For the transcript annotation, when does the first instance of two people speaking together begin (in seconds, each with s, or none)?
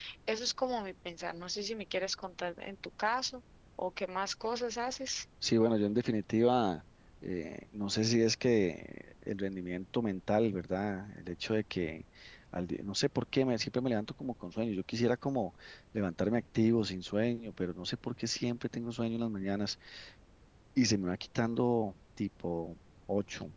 none